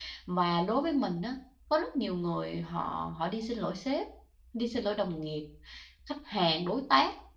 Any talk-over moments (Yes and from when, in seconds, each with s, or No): No